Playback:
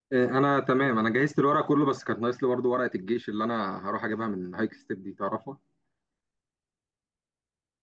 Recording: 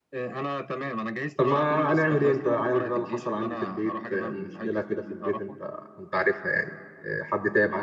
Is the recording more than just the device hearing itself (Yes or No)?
Yes